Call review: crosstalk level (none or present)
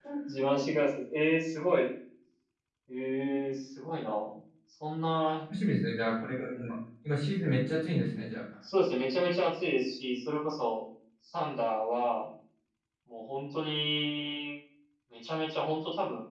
none